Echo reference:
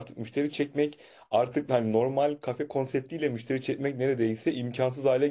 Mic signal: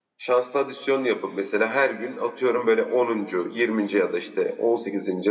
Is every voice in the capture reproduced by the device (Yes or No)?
No